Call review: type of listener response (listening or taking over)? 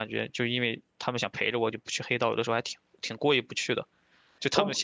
listening